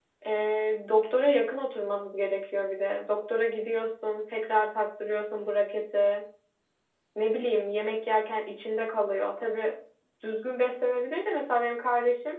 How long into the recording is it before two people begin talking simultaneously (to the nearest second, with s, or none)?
none